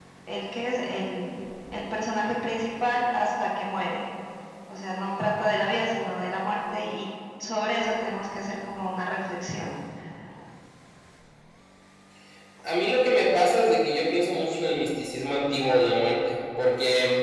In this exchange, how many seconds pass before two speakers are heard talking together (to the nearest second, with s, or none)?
none